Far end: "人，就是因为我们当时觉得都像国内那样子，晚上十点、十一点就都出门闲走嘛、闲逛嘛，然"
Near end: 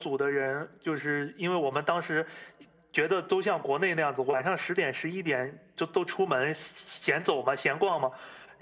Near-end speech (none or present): none